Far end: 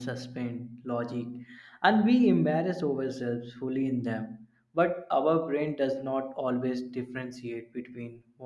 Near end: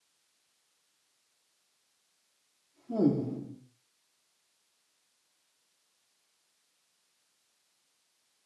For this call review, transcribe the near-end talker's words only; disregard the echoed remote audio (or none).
Hmm.